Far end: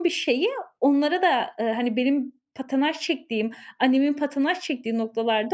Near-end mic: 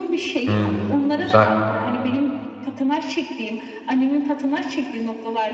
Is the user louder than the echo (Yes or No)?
Yes